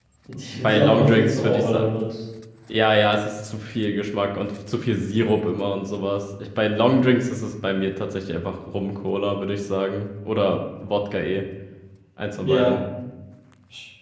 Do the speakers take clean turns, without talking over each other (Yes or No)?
No